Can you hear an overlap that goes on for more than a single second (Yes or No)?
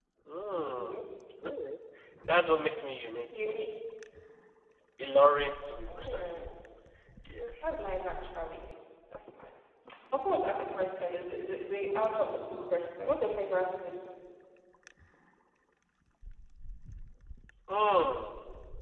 No